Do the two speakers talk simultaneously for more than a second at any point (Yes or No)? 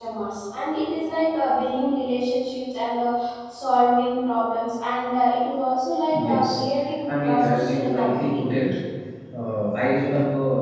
Yes